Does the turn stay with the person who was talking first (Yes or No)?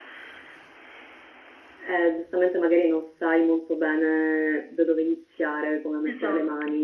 Yes